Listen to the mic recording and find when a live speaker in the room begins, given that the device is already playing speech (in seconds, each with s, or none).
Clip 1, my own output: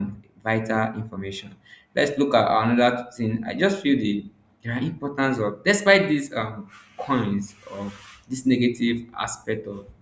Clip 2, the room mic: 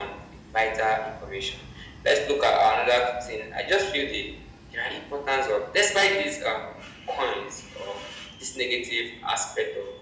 none